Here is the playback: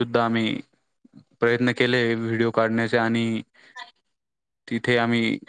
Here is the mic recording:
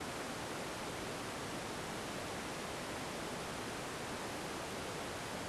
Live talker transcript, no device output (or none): none